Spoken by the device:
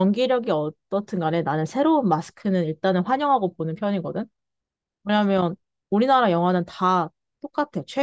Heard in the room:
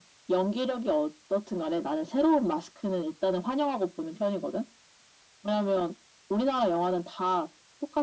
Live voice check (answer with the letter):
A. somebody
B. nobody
B